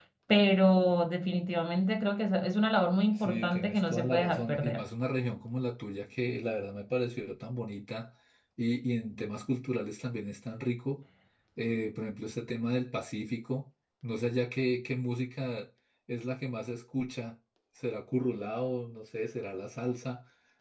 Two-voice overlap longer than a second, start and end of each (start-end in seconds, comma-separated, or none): 3.1-4.8